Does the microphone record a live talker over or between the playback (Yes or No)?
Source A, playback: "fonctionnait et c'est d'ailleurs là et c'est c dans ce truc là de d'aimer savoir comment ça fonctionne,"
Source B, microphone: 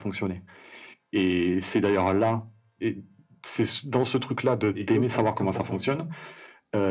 Yes